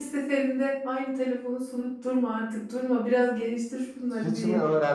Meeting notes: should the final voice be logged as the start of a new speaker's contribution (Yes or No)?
Yes